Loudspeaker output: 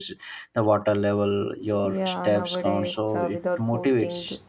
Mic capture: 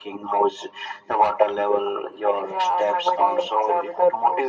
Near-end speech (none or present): none